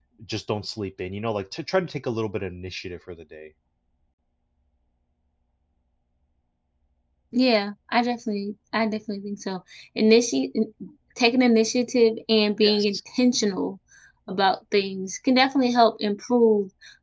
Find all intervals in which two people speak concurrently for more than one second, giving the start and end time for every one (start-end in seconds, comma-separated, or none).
none